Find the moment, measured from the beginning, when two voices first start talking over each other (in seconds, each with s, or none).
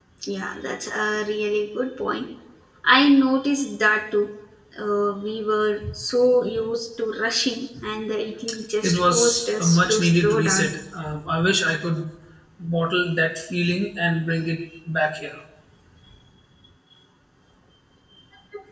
8.8 s